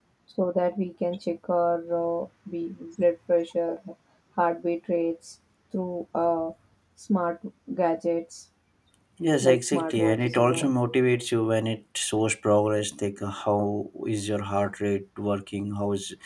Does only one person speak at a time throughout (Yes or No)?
No